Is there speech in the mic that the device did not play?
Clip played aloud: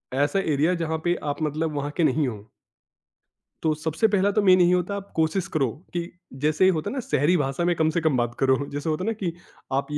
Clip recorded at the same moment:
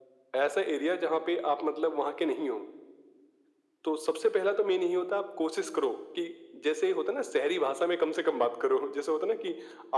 No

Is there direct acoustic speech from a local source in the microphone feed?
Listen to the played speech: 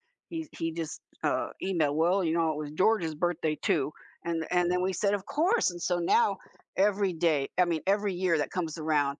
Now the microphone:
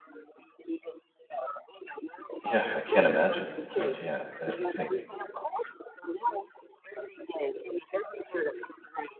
Yes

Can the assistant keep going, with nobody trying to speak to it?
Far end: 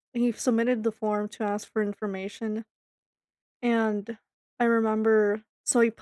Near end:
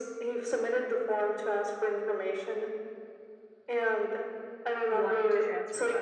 No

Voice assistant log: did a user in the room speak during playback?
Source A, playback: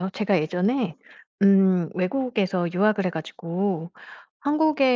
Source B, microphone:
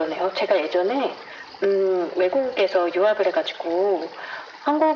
No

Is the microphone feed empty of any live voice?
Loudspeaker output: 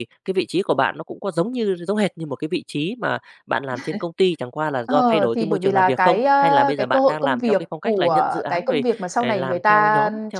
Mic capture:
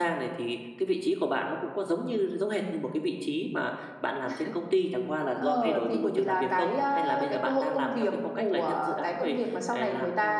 Yes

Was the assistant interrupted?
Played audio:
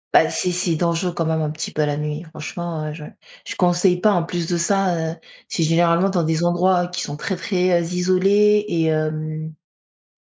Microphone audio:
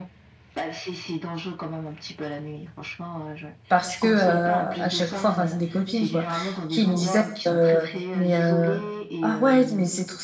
Yes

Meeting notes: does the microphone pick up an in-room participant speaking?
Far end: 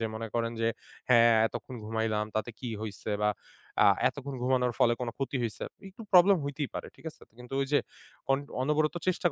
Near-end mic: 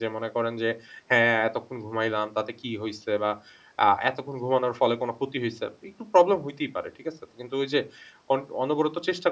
No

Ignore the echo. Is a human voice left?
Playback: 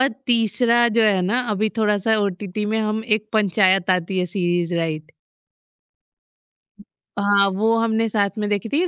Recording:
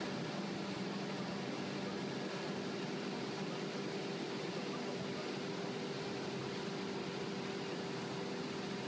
No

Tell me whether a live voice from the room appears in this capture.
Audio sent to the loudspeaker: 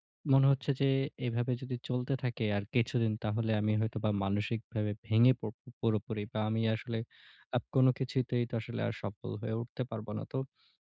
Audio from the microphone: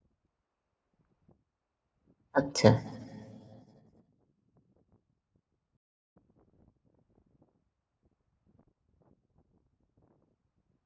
Yes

